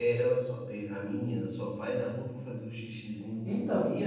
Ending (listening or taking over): listening